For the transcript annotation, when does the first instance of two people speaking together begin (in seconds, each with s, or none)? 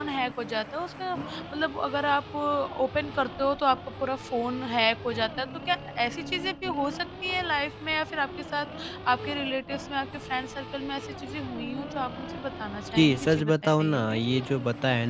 12.9 s